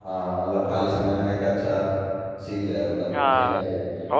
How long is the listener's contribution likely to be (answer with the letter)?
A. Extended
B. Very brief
A